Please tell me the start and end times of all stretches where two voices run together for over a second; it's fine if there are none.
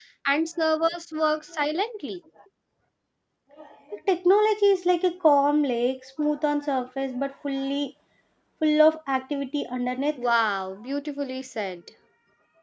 none

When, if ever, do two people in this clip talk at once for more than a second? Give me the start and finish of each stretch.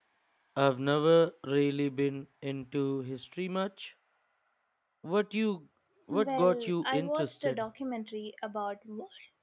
6.1-7.7

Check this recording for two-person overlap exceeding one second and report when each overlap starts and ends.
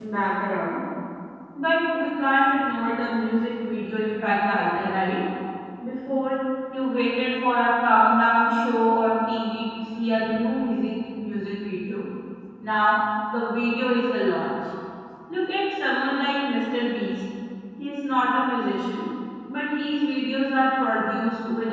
none

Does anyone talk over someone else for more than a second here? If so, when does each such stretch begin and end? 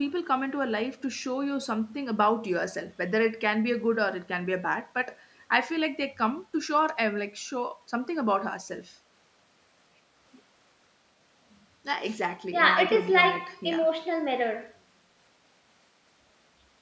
12.5-13.8

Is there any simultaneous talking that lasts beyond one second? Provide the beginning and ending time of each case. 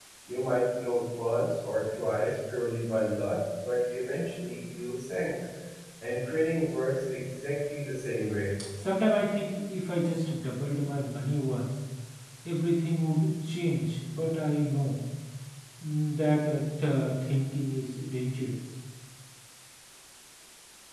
none

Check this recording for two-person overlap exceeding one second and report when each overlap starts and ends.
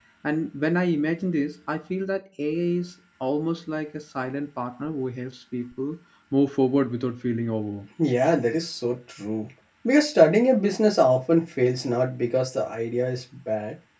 none

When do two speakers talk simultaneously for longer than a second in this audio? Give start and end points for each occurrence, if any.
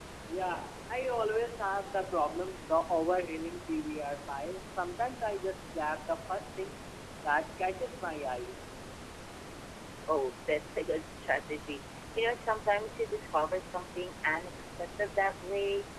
none

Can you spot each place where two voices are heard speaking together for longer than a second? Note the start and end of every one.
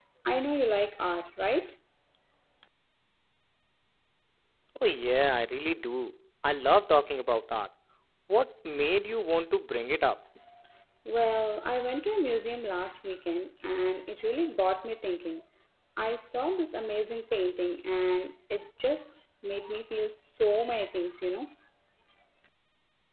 none

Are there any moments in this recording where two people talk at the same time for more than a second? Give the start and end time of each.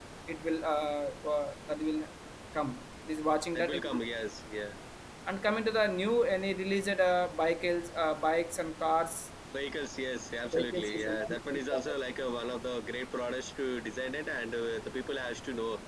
10.5-11.9

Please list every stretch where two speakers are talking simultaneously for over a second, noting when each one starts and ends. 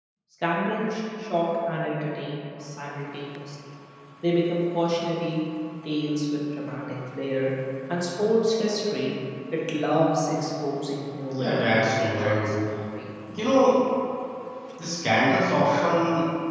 11.3-12.5

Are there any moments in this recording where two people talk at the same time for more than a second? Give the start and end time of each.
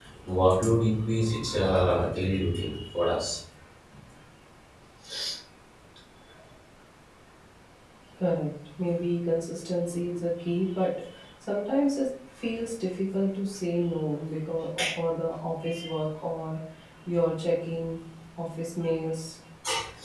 none

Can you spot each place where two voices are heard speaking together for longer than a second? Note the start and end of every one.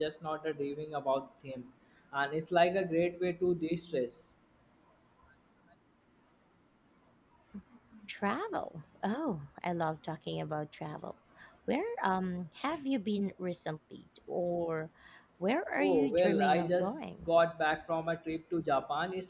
15.8-17.3

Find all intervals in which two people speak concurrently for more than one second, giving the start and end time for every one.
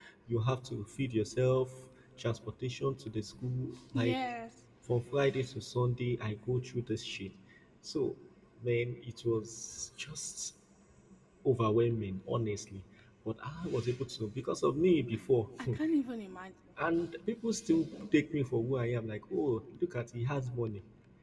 none

